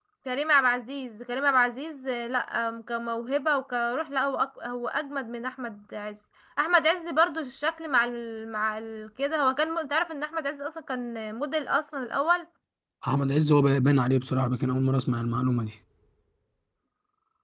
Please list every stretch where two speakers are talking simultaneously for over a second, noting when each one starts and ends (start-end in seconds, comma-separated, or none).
none